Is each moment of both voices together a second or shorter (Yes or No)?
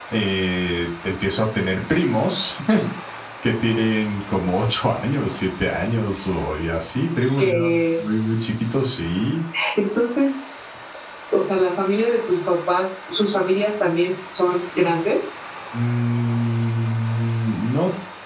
Yes